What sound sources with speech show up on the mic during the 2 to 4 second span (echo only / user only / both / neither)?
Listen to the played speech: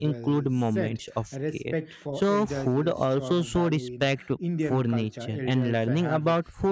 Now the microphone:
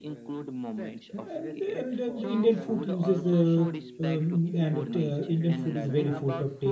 both